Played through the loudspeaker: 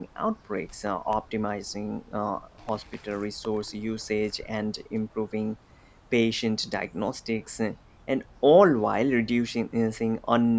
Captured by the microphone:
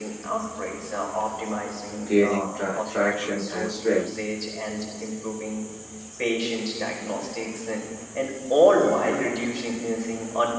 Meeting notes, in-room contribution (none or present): present